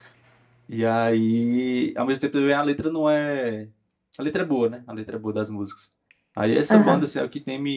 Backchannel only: Yes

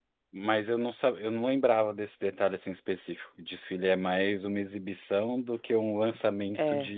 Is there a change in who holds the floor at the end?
No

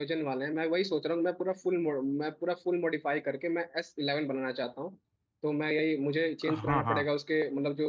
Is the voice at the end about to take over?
No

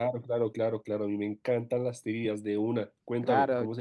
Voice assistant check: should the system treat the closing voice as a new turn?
Yes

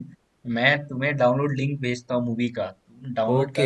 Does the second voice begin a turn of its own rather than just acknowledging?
Yes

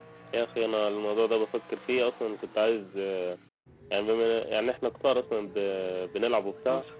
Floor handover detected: No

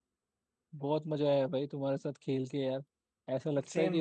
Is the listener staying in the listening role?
Yes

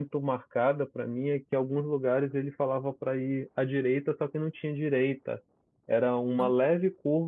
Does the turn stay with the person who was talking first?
Yes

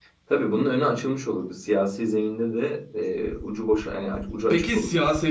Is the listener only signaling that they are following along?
No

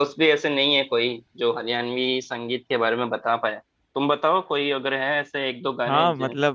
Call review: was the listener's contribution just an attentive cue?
No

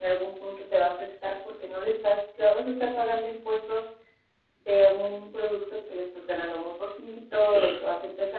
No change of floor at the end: Yes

